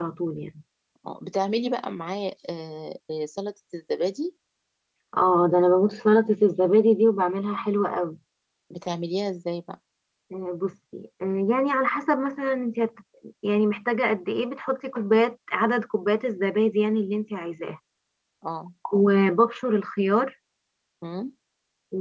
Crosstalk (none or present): none